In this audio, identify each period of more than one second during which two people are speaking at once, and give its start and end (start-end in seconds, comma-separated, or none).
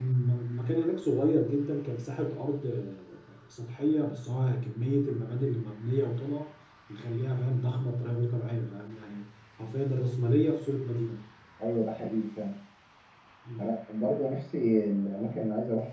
none